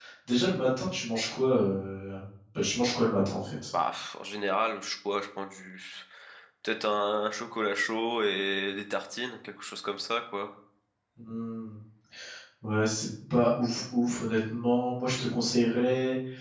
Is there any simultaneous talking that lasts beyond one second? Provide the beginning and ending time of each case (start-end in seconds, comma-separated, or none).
none